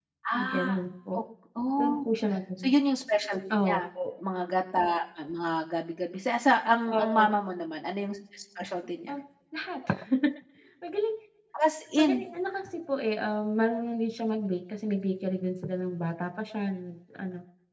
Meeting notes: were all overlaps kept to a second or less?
Yes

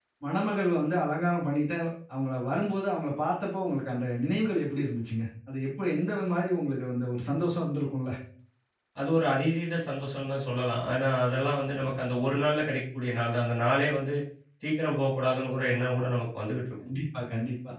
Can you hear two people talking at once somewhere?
No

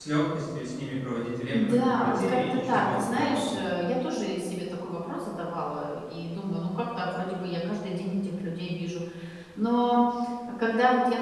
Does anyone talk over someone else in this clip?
Yes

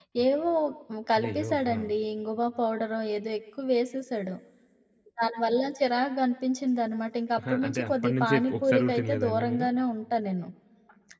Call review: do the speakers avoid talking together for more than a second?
No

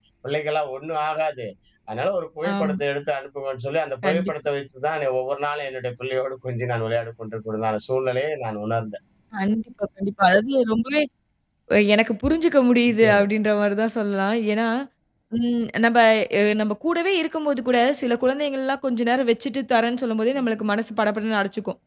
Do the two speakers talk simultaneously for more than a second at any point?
No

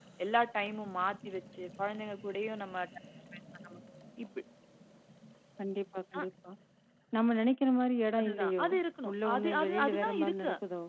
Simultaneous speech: Yes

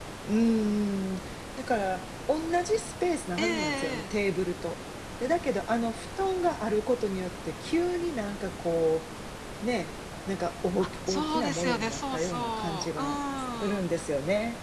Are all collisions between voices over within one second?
No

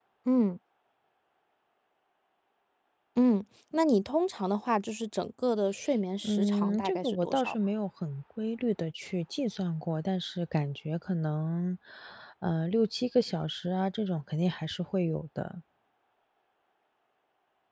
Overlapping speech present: Yes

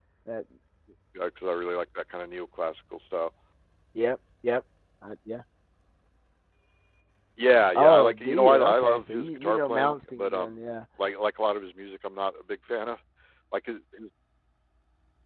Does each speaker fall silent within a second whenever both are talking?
No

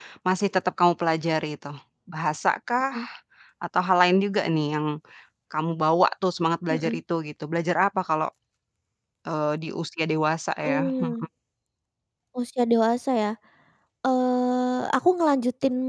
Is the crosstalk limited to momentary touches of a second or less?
Yes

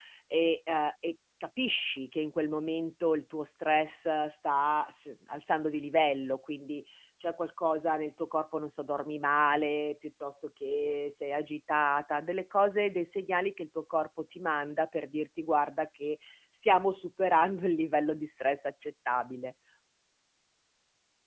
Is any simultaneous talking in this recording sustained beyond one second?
No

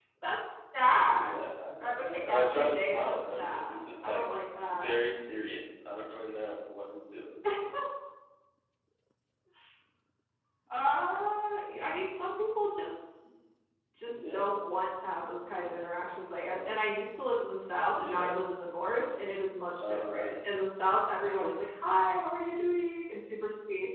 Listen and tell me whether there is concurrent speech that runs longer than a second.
Yes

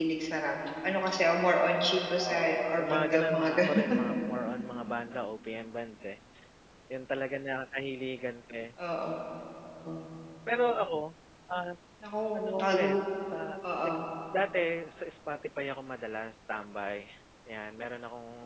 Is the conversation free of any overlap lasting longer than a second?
No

